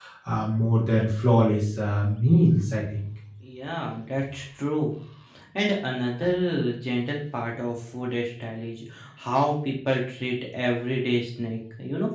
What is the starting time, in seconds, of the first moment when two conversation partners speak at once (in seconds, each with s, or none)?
none